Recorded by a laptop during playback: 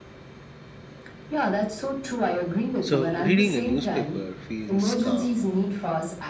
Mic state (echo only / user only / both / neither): both